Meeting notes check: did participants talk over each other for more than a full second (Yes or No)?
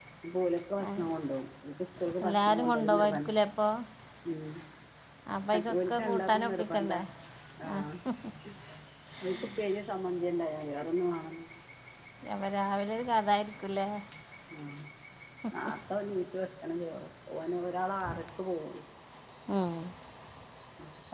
Yes